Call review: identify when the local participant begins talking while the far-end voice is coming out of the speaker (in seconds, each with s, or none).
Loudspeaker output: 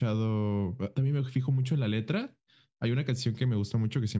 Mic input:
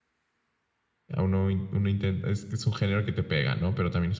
1.1 s